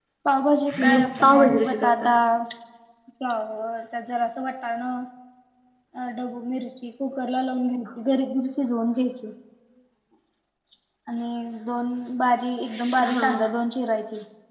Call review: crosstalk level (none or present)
present